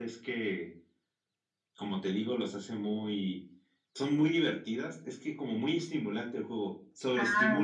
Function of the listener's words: taking over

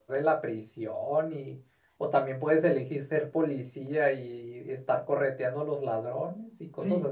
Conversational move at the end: taking over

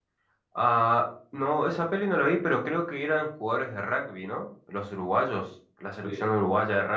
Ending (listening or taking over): listening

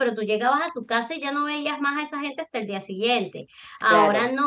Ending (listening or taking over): listening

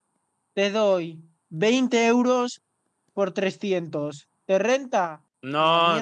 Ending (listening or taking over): taking over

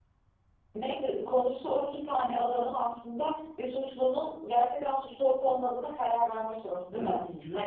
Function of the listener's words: taking over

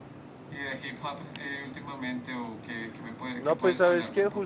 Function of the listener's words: taking over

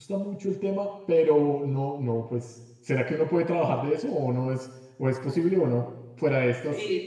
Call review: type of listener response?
taking over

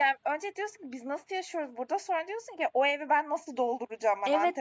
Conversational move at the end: taking over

